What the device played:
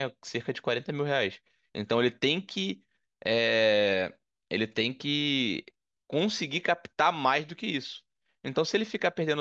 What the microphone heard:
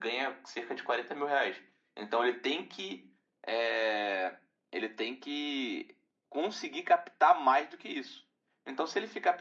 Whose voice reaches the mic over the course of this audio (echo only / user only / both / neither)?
echo only